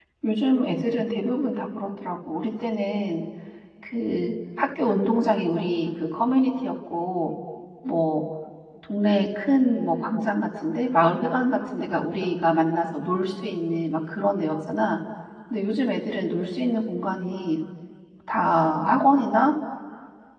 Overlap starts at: none

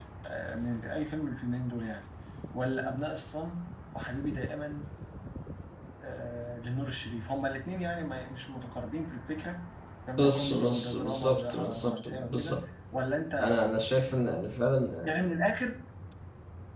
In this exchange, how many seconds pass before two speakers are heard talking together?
10 s

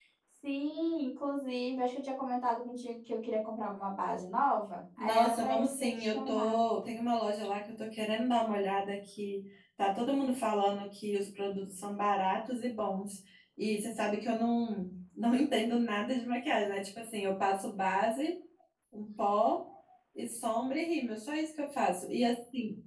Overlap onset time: 5 s

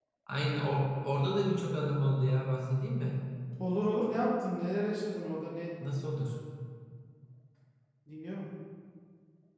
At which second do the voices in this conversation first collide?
none

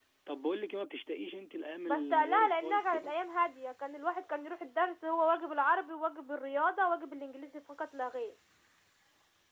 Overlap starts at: 2 s

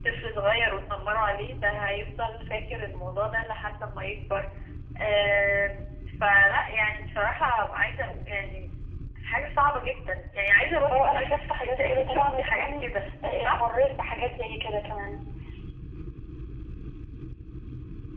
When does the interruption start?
11 s

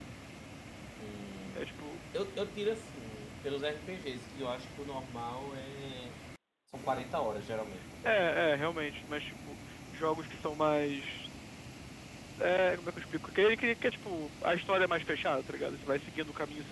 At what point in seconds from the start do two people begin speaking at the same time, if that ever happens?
none

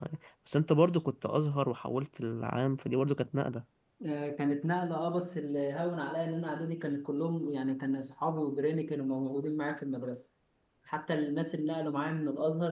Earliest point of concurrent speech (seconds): none

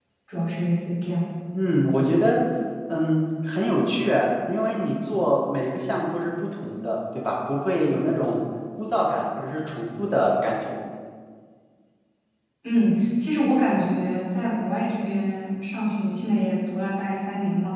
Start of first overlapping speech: none

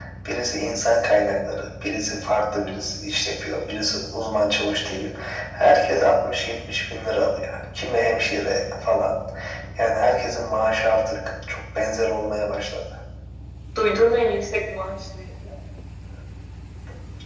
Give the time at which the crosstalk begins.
none

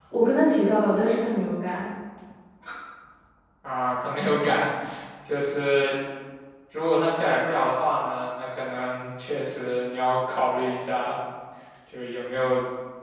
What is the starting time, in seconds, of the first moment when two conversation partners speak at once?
none

